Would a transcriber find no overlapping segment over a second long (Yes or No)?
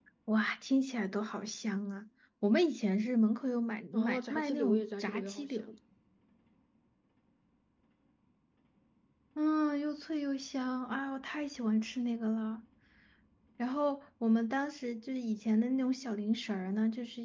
No